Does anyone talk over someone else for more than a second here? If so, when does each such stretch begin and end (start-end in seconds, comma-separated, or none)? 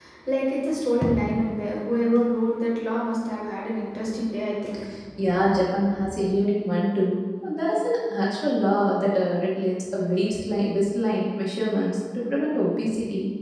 none